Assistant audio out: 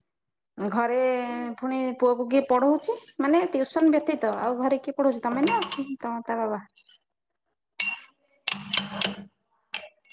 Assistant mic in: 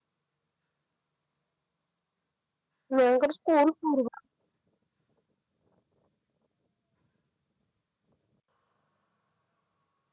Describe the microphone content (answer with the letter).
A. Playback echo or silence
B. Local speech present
B